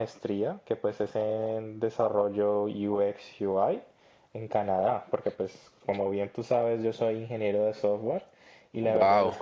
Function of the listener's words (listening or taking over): listening